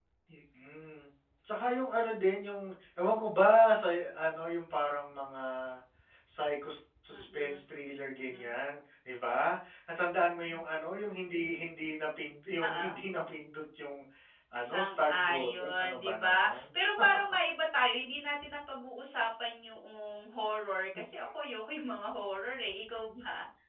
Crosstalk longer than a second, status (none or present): present